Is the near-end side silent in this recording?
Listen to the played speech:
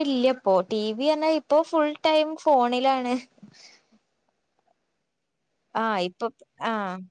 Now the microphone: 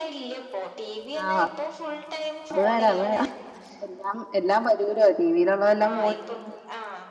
No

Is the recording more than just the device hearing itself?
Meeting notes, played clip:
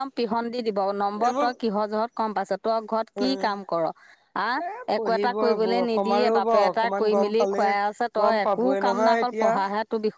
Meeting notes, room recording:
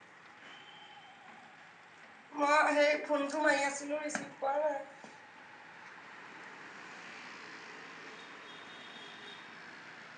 Yes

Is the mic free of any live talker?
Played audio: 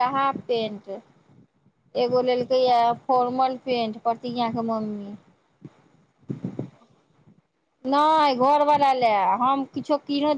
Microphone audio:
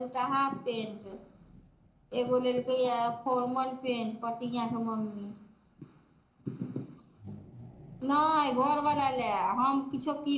Yes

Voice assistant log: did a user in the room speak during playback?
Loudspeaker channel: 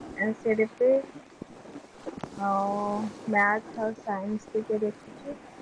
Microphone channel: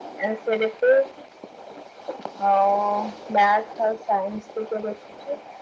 No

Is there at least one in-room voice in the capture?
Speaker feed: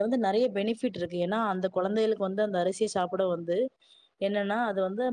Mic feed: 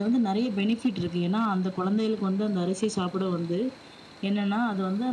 No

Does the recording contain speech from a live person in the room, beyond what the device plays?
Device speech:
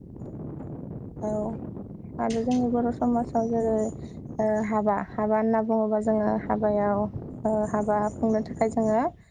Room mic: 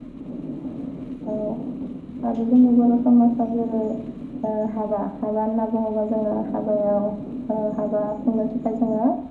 No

